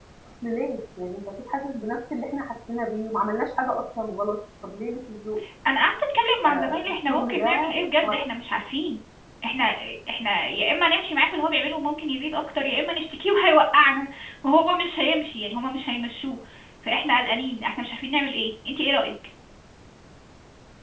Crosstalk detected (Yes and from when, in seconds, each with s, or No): Yes, from 6.4 s